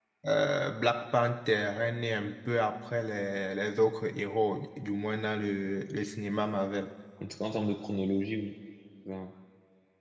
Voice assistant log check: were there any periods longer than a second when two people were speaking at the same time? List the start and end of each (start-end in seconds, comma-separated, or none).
none